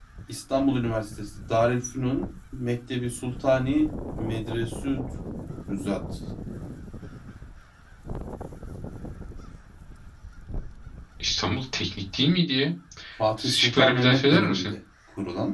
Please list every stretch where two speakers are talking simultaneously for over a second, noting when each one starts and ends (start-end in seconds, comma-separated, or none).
13.4-14.7